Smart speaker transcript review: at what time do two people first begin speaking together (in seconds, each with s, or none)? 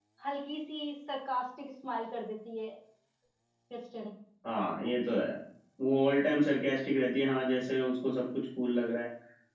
none